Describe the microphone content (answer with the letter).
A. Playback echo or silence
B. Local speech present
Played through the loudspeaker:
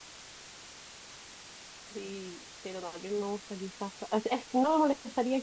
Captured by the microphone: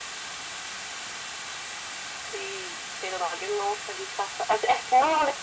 A